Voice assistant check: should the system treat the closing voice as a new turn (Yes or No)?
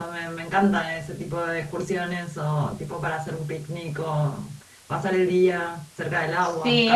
Yes